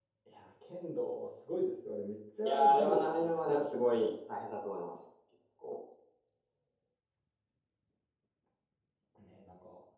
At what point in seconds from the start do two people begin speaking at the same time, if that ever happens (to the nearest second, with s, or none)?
2 s